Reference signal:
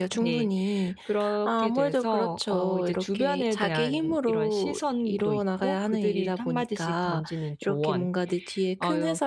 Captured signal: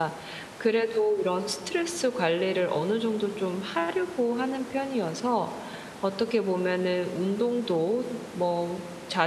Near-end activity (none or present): present